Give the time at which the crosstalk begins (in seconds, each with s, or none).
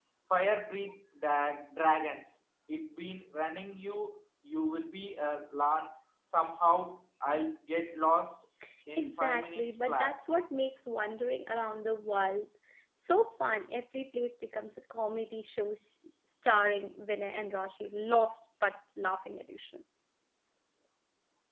9.0 s